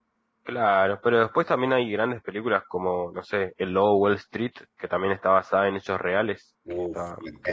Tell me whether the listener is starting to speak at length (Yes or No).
Yes